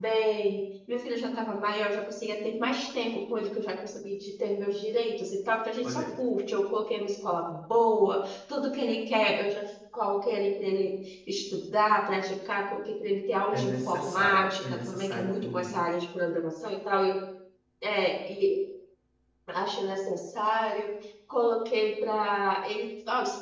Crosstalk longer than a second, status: present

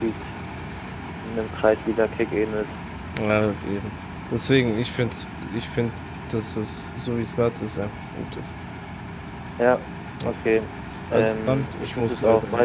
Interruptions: present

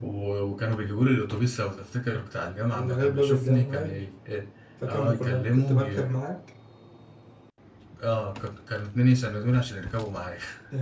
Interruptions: present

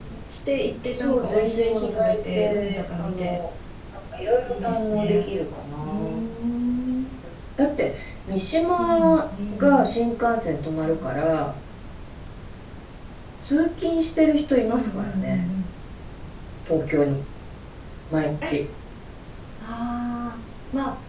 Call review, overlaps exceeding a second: present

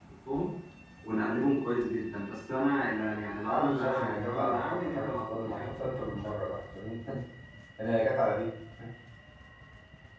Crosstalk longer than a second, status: present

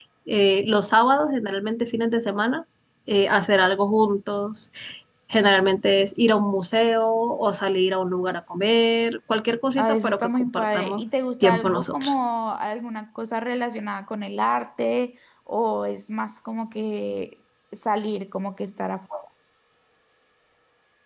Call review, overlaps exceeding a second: present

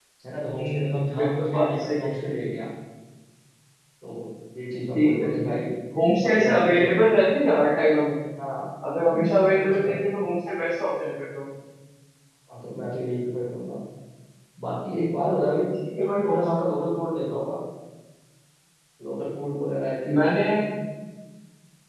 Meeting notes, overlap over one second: present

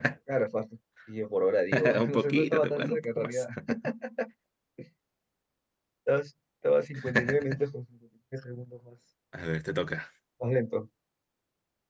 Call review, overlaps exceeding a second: present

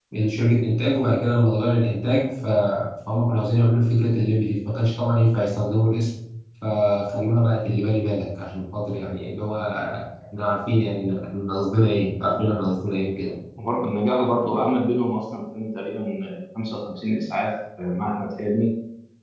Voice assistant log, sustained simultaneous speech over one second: none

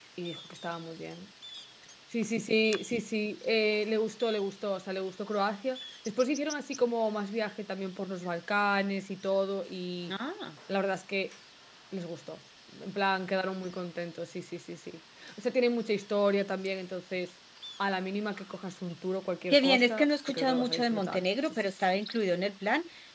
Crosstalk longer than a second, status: present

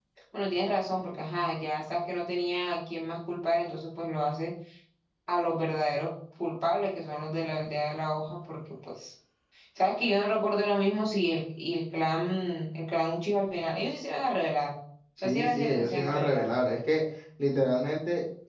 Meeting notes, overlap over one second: present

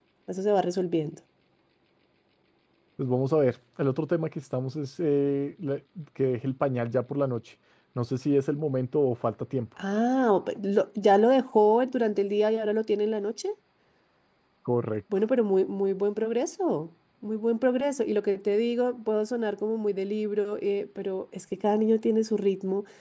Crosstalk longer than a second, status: none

